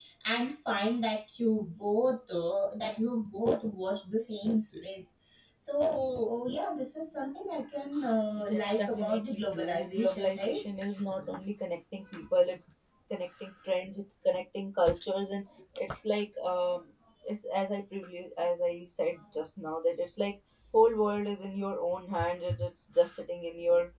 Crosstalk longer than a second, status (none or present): present